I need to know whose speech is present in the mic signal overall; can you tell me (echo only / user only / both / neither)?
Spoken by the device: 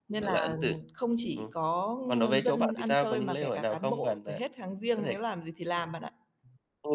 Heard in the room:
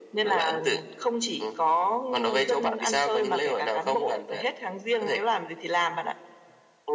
echo only